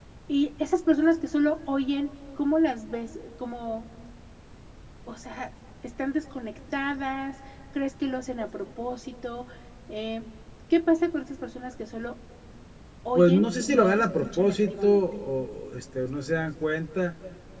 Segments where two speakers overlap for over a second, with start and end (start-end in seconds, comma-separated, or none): 13.1-15.0